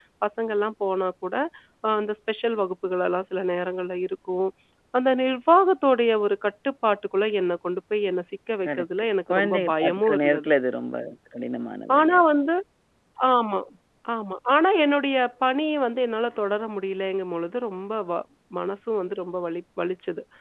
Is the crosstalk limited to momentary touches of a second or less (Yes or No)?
No